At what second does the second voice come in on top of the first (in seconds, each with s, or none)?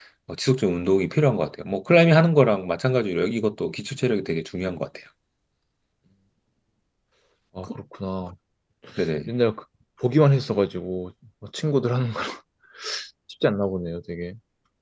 none